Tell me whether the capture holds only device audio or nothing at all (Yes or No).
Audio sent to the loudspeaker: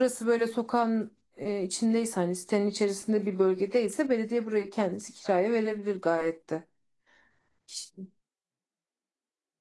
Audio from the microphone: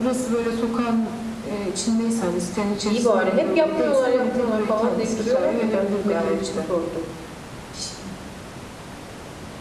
No